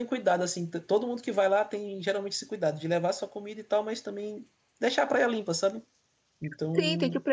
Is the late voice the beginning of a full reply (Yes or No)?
Yes